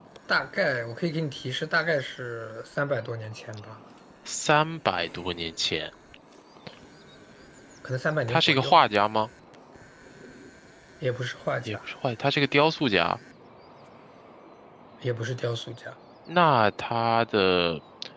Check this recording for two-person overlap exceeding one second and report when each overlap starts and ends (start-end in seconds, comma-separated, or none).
none